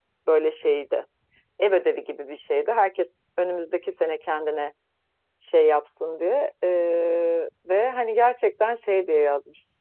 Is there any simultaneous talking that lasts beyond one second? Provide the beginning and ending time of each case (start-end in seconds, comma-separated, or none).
none